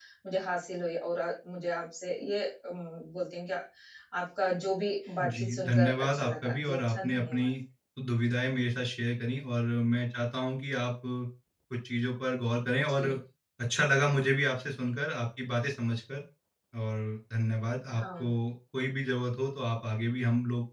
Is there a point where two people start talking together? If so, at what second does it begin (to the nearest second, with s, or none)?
5 s